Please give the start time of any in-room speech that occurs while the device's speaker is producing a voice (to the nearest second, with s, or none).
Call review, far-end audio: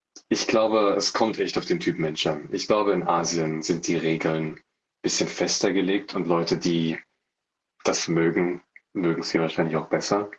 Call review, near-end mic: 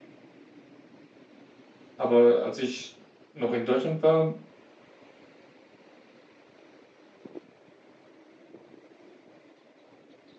2 s